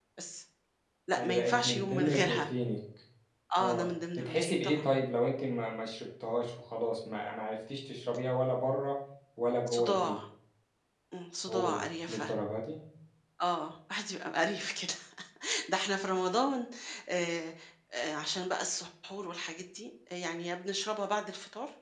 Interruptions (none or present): present